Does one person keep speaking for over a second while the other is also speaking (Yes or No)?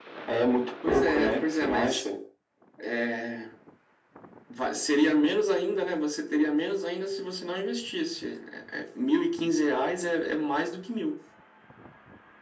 Yes